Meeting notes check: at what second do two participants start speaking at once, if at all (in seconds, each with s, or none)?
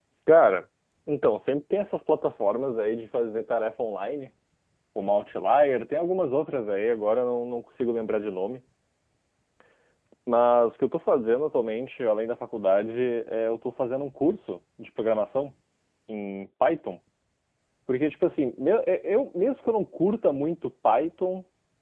none